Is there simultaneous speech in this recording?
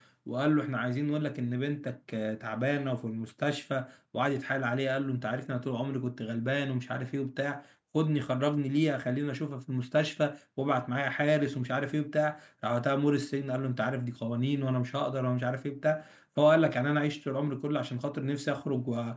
No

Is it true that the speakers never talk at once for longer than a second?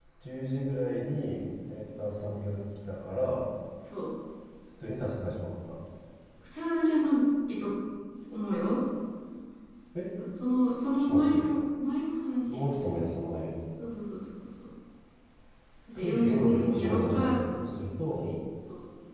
No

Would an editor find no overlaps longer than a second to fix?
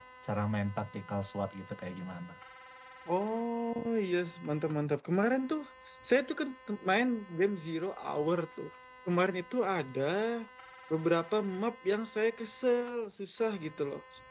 Yes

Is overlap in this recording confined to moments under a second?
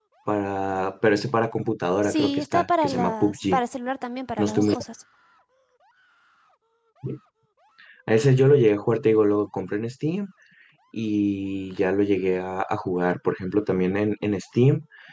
No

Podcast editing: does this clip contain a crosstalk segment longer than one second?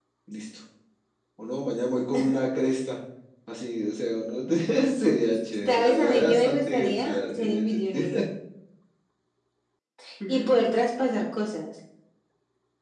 Yes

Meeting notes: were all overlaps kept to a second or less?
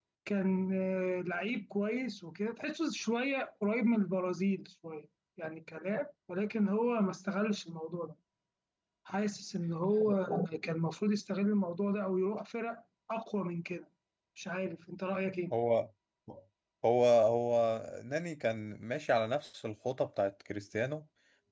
Yes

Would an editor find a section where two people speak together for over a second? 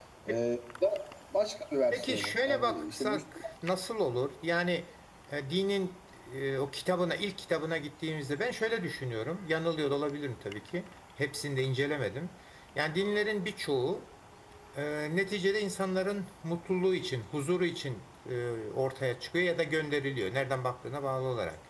Yes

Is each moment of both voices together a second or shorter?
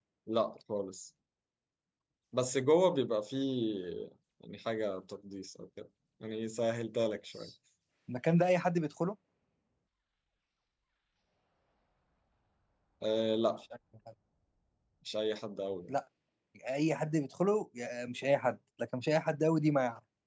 Yes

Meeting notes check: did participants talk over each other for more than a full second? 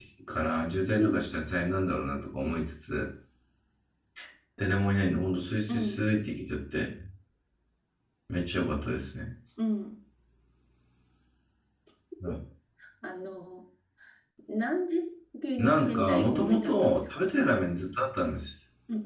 Yes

